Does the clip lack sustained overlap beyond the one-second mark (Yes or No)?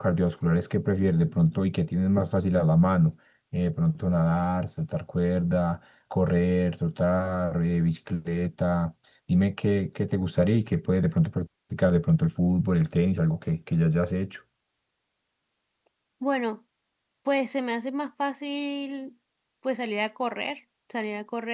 Yes